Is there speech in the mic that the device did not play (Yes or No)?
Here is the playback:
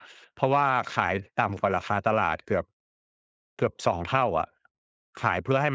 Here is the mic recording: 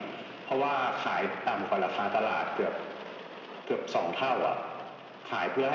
No